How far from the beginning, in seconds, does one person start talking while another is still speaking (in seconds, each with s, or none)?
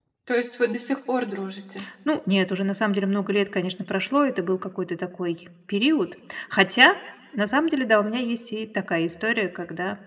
none